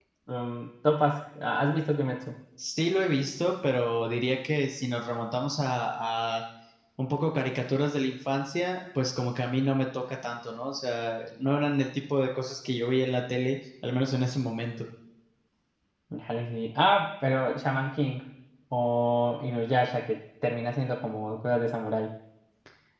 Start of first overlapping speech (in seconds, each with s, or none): none